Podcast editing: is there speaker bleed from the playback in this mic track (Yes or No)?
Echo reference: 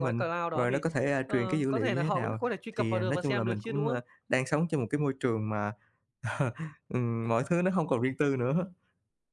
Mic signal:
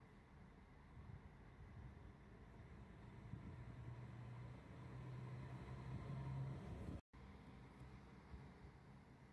No